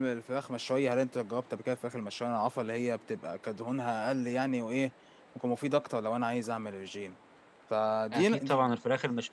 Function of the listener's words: taking over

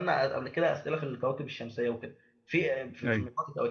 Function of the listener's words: listening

